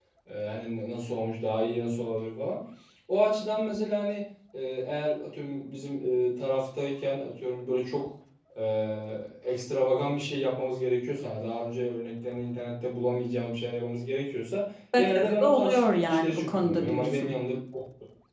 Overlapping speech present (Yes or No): Yes